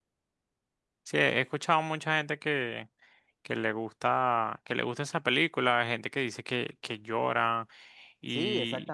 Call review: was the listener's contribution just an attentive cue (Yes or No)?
No